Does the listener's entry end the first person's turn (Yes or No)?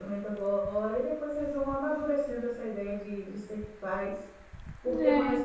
No